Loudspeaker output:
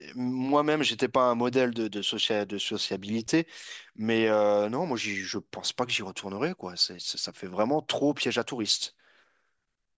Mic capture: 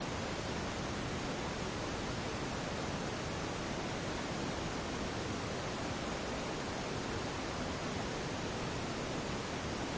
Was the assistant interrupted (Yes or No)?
No